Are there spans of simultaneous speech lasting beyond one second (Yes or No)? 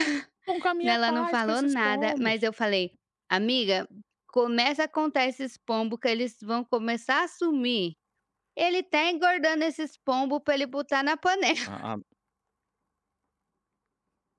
Yes